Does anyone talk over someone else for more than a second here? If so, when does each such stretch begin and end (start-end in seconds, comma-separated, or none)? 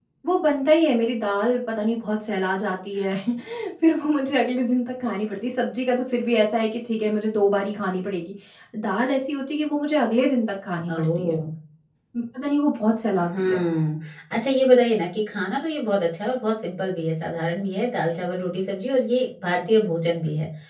none